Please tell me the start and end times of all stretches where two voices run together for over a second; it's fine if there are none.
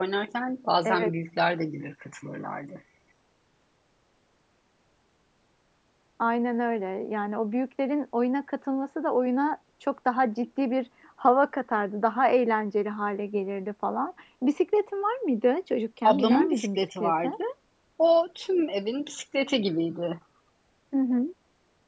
16.0-17.3

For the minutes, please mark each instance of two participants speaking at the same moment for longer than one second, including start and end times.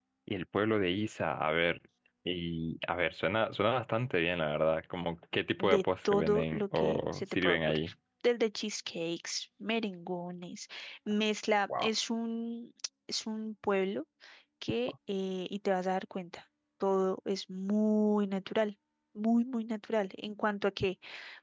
5.6-7.9

